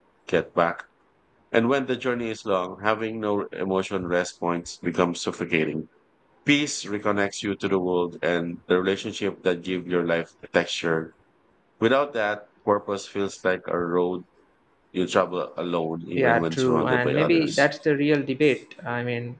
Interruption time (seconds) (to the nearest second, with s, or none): 16 s